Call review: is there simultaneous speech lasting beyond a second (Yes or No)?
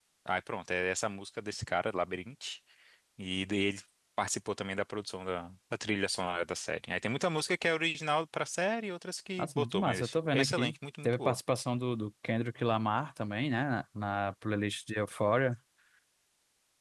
Yes